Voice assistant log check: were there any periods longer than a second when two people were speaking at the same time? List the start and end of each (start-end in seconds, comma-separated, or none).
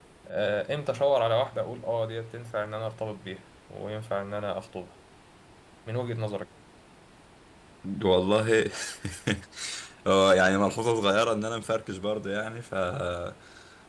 none